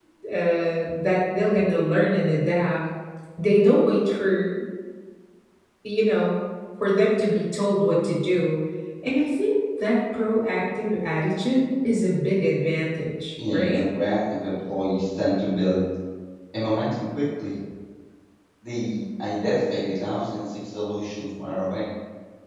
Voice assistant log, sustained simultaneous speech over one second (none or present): none